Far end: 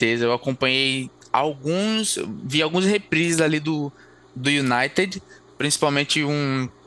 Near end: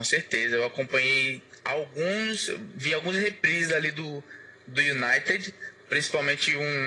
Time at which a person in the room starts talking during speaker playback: none

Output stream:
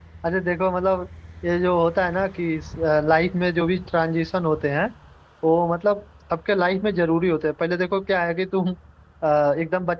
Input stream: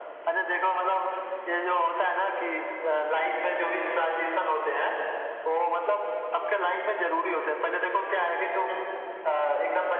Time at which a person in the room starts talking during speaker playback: none

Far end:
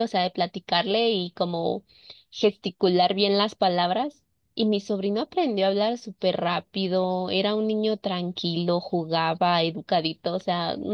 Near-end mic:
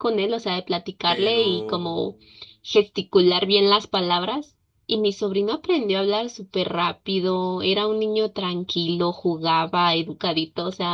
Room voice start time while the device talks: 1.0 s

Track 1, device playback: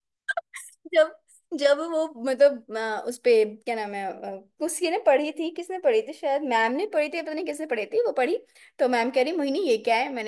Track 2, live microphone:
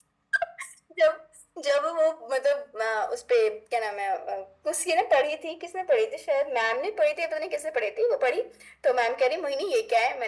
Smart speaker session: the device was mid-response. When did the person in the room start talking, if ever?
none

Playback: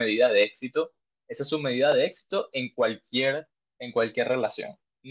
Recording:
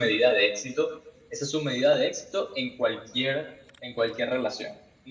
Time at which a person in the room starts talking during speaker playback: none

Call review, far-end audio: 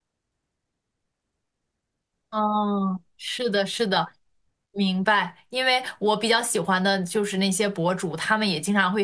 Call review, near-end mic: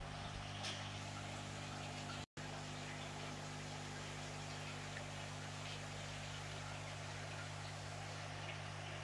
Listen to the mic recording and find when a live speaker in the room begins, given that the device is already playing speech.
none

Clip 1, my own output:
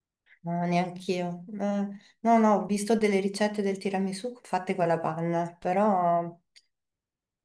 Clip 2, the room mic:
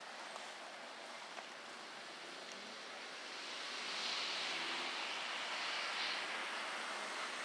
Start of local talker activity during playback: none

